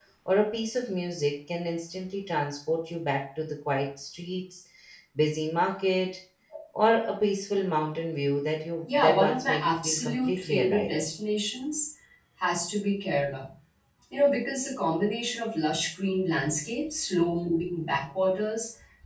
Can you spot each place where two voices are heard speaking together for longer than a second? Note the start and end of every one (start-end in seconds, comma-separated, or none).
8.9-11.0